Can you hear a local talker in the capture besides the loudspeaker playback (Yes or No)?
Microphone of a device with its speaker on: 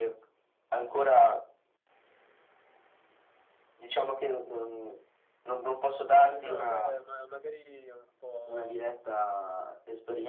Yes